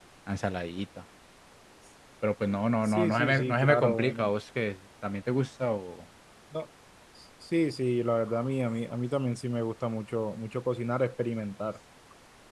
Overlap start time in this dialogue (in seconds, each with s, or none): 2.9 s